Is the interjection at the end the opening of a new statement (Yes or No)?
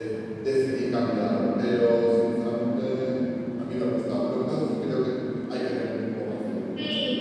Yes